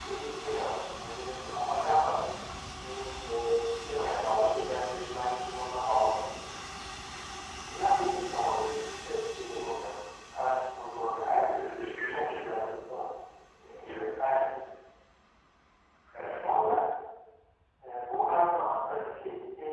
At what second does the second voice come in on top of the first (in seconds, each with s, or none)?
11.4 s